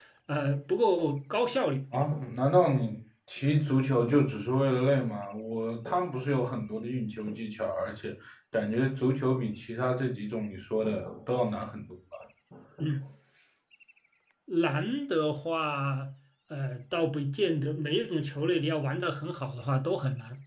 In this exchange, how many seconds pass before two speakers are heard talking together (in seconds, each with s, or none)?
none